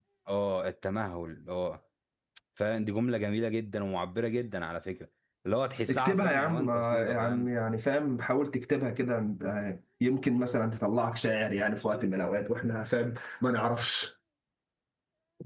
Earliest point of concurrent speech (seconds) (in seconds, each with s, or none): 5.9 s